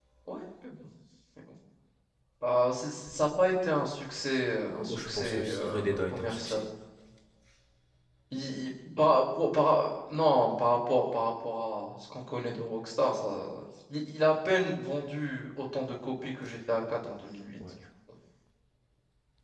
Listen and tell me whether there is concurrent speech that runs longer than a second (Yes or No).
Yes